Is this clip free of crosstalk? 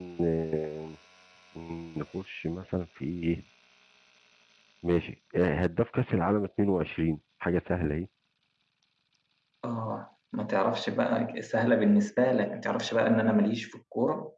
Yes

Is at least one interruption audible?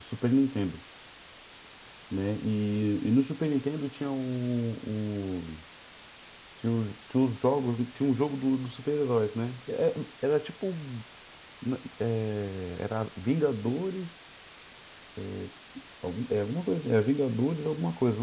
No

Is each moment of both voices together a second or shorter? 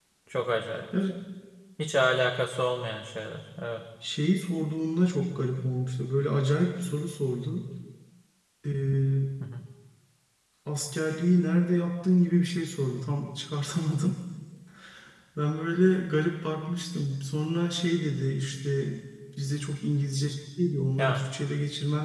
Yes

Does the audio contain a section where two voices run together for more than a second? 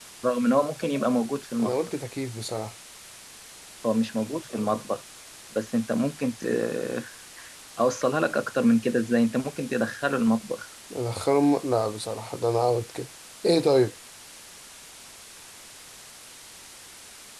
No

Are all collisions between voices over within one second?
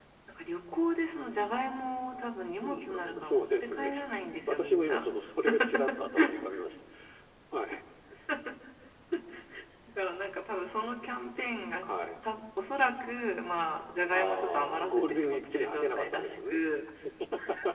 No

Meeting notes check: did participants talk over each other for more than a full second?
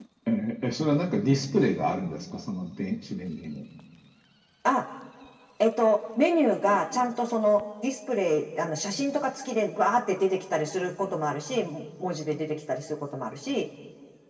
No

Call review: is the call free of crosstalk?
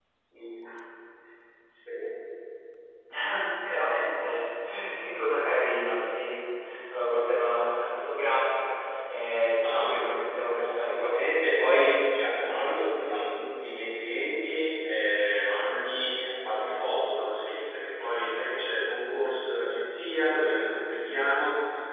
No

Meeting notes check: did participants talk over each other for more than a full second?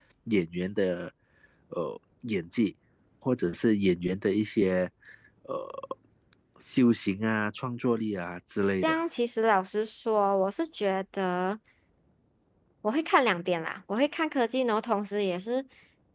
No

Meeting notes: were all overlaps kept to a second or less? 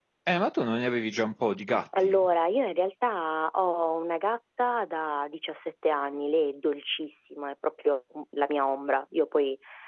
Yes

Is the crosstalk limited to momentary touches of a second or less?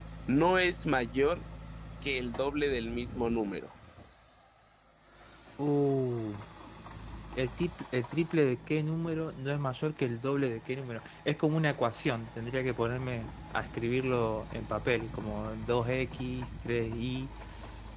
Yes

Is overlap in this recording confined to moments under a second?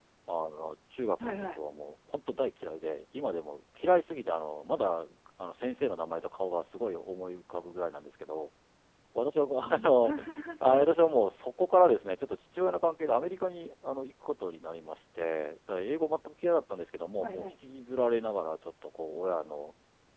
Yes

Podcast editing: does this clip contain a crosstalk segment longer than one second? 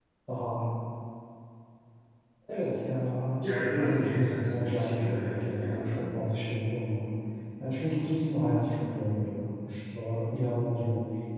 Yes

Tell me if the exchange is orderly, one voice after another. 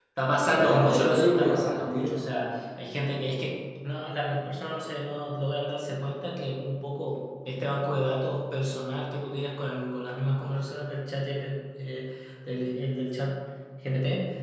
No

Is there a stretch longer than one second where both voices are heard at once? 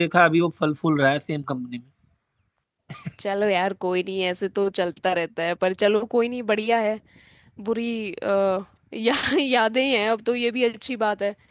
No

